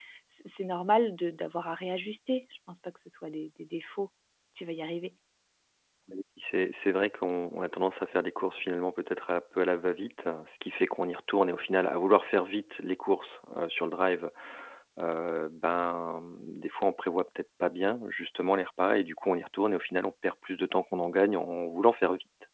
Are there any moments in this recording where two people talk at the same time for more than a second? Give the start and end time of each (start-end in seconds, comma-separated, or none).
none